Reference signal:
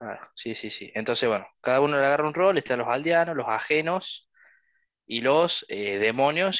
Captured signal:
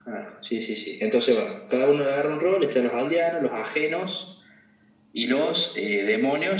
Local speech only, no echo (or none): none